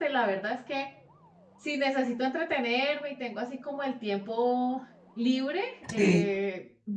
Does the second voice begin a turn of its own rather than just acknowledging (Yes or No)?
No